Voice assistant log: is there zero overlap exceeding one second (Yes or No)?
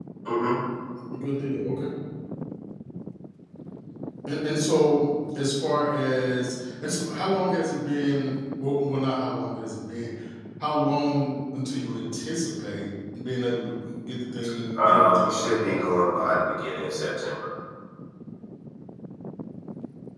No